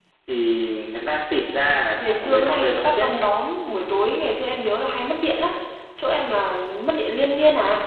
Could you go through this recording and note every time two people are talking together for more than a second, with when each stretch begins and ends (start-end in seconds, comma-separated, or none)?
2.0-3.2